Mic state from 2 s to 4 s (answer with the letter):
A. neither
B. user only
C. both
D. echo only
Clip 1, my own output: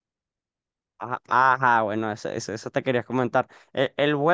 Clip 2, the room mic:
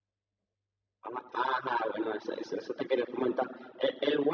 D